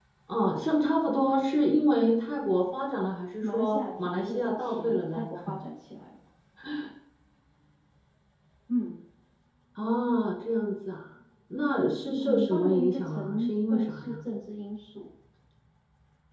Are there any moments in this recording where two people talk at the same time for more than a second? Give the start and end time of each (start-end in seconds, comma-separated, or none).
3.4-5.3, 12.2-14.2